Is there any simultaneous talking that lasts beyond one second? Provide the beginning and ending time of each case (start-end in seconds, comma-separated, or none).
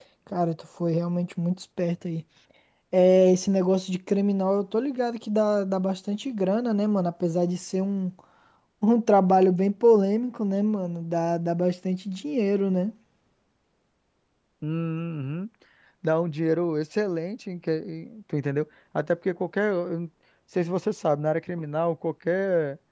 none